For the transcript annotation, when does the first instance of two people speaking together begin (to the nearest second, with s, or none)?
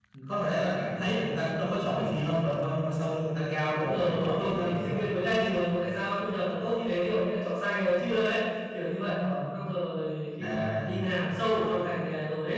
4 s